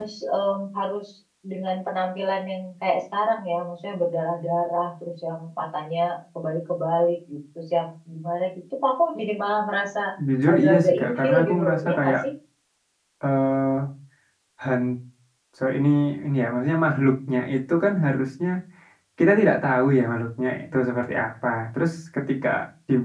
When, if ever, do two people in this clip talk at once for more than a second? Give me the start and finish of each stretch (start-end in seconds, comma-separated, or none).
10.5-12.2